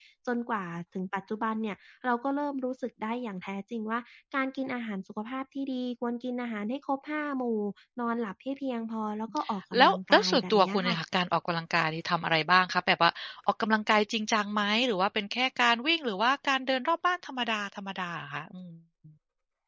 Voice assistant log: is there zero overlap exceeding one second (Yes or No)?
No